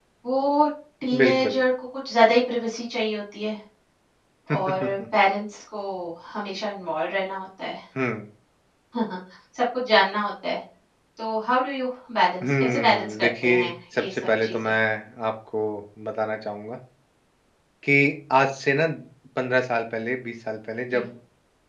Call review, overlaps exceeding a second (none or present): present